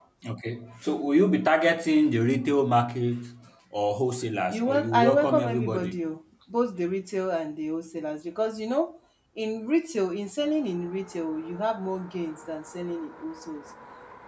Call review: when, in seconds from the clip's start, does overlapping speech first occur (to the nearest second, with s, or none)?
5 s